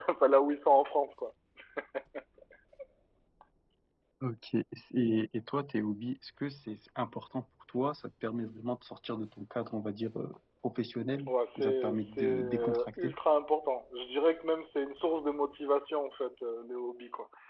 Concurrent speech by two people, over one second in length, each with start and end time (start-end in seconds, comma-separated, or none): 11.3-13.1